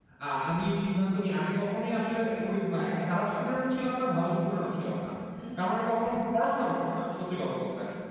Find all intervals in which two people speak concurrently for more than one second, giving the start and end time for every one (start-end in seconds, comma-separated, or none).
2.8-4.0